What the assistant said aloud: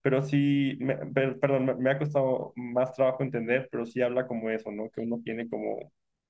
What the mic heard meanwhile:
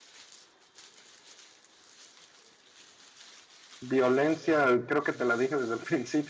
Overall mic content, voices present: user only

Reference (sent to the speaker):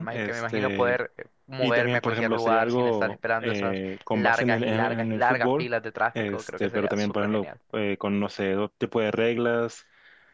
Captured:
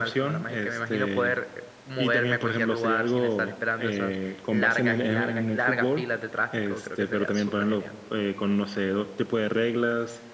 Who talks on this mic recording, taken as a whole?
echo only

